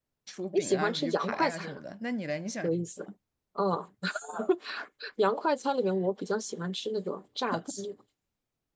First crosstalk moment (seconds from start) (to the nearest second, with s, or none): 1 s